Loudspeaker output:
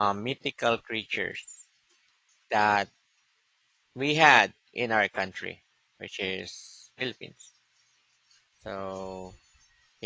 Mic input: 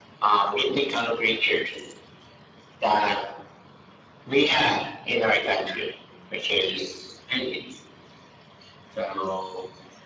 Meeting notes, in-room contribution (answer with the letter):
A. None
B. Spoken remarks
A